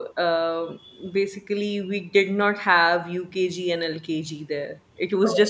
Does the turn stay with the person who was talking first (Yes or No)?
Yes